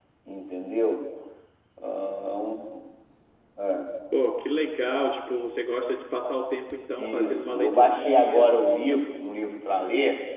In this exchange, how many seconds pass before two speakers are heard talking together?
7.0 s

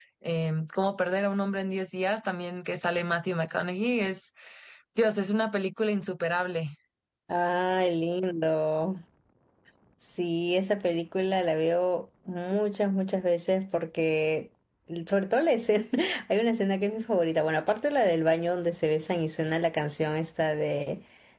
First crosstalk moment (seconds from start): none

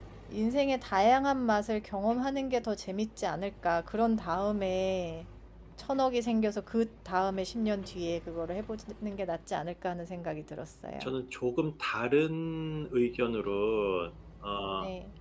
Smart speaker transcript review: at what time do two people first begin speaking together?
none

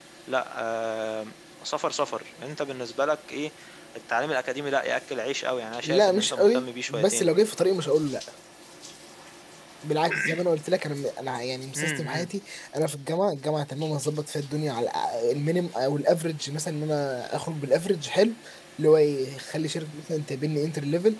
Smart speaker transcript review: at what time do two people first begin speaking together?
5.8 s

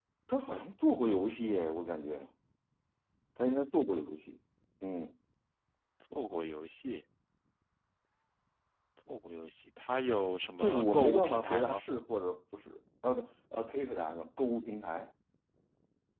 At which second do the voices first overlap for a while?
10.6 s

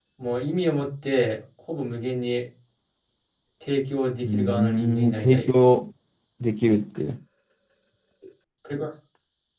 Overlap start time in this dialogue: 4.2 s

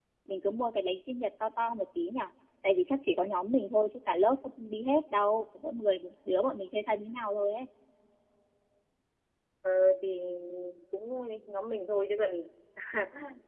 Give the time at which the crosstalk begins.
none

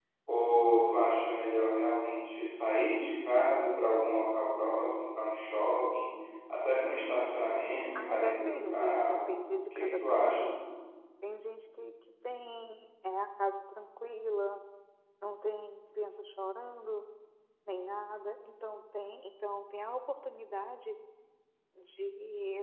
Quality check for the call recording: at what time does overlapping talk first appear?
8.0 s

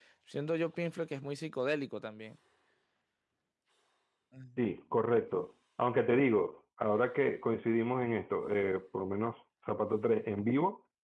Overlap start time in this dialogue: none

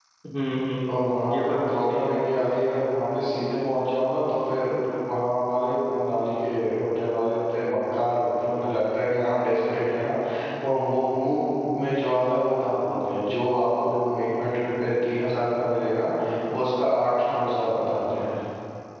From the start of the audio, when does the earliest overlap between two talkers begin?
0.9 s

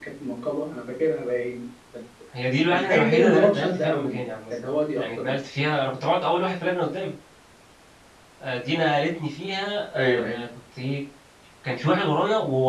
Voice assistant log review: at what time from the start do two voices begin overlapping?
2.7 s

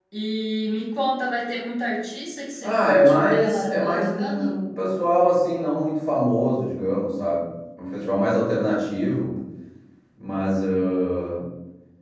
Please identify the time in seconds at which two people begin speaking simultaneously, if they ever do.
2.6 s

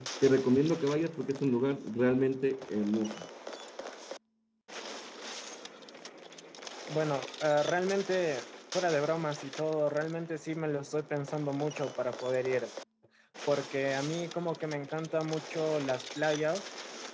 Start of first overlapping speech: none

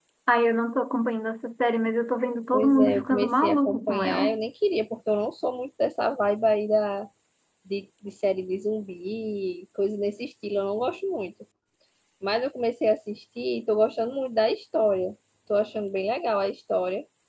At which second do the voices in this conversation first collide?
2.5 s

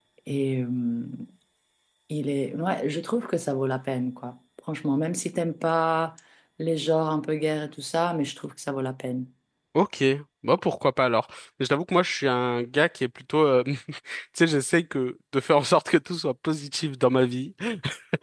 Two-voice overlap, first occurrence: none

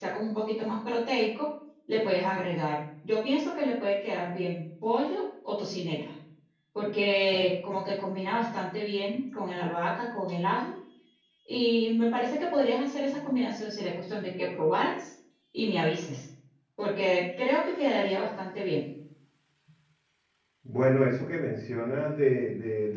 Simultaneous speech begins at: none

